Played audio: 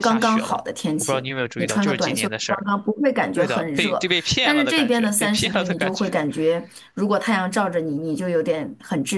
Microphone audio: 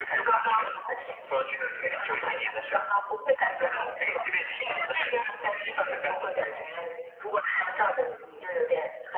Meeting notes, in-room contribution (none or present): none